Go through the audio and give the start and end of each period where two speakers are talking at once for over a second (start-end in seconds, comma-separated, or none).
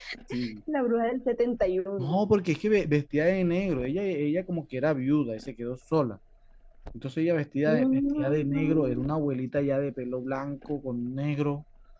7.7-9.1